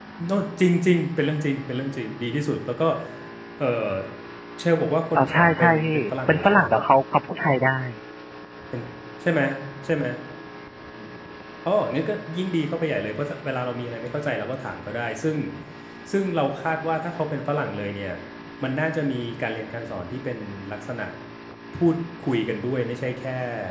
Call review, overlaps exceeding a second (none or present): present